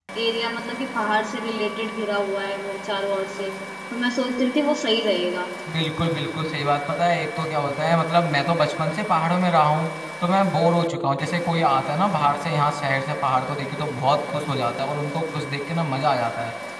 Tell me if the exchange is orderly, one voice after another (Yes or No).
Yes